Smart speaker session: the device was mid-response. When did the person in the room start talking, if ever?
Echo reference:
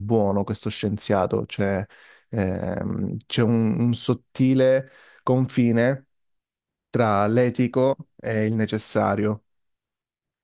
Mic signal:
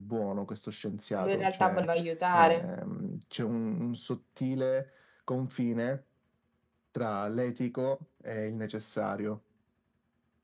1 s

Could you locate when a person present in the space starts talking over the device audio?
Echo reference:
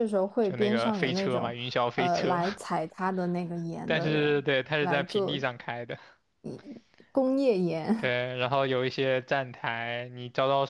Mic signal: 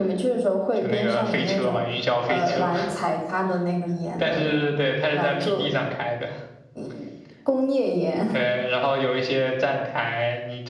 none

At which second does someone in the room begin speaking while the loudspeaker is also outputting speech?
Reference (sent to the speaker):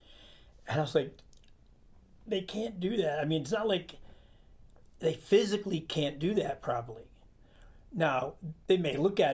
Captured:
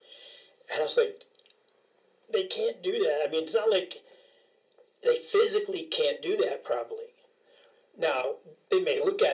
none

